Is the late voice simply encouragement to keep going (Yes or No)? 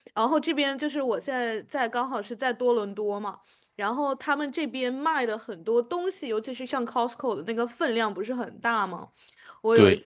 Yes